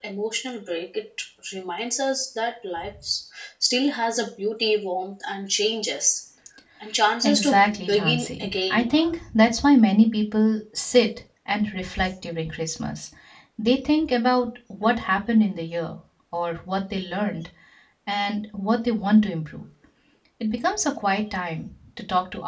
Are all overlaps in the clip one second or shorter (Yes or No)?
No